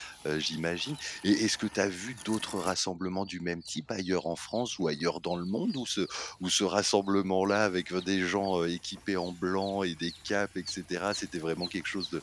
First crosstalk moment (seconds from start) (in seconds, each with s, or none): none